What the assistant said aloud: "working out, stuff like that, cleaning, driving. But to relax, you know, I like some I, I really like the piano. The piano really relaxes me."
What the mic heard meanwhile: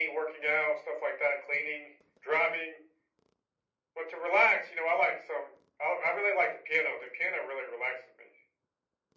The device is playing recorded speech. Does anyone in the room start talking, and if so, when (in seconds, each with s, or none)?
none